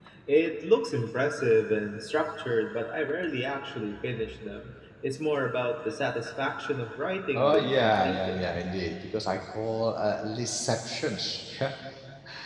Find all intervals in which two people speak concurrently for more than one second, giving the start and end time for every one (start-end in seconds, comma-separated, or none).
7.3-8.6